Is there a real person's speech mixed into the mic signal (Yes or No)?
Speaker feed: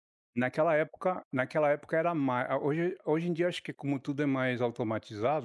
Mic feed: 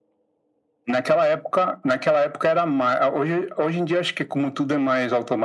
No